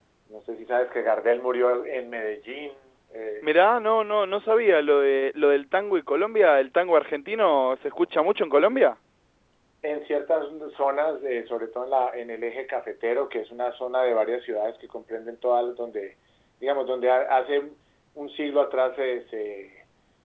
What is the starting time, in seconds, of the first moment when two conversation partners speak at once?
none

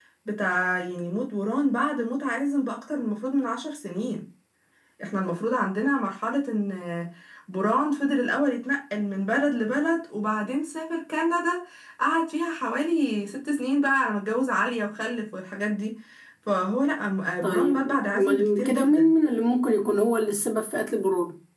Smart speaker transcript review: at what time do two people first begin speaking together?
17.4 s

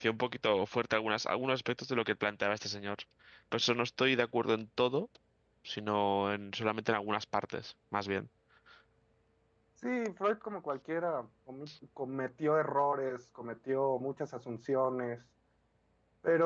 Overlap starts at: none

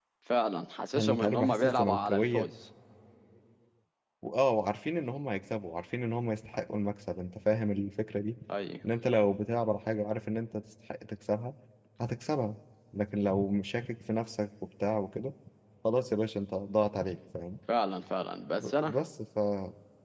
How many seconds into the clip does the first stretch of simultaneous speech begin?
0.9 s

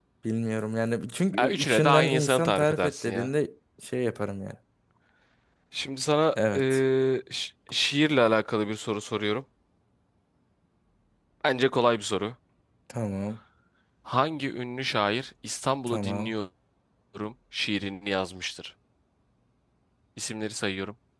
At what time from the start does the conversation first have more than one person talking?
1.4 s

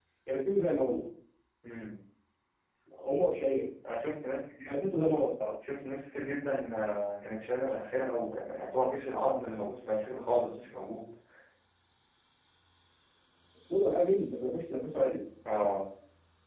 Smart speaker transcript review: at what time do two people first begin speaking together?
none

